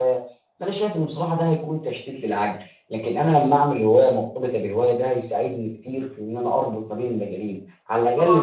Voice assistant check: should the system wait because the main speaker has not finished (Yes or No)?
No